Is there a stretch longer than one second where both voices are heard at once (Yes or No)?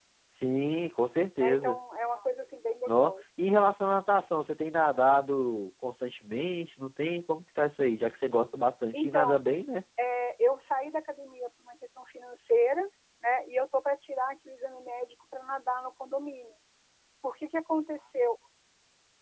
No